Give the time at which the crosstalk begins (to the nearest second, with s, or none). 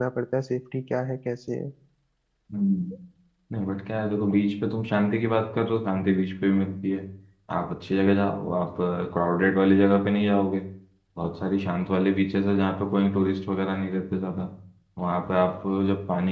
none